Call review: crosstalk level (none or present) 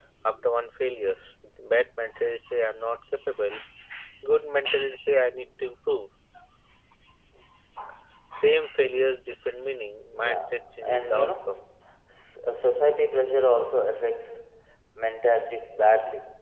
present